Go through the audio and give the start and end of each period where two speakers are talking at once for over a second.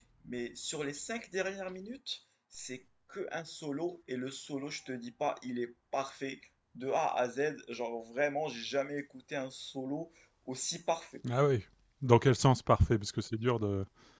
none

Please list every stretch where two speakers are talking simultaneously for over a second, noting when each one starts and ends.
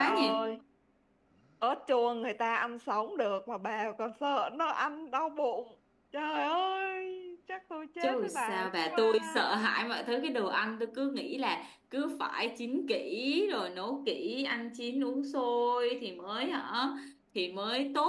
8.0-9.4

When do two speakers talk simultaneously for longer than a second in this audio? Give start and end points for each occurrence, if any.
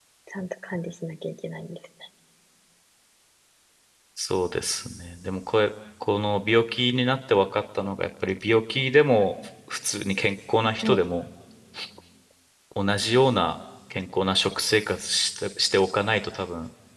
none

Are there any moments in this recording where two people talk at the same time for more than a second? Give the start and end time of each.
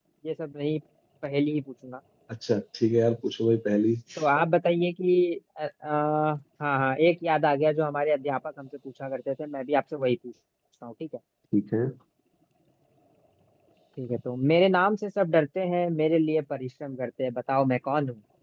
none

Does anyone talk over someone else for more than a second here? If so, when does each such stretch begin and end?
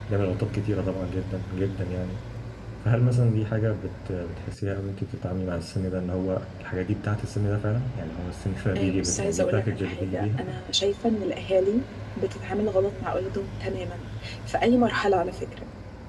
8.8-10.4

